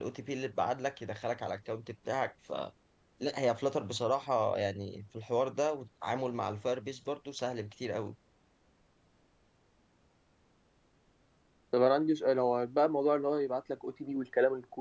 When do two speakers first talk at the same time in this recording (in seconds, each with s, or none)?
none